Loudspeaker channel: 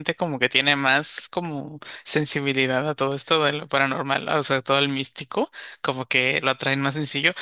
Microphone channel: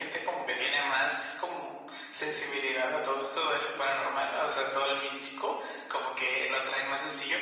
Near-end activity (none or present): none